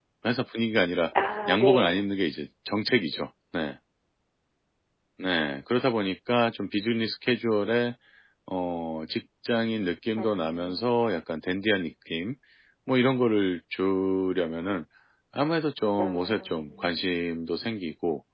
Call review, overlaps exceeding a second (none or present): present